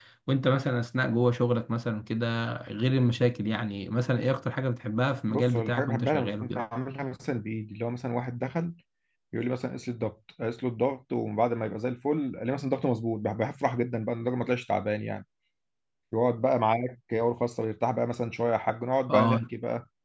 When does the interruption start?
5.3 s

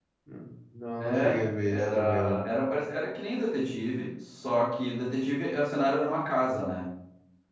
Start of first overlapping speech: 1.0 s

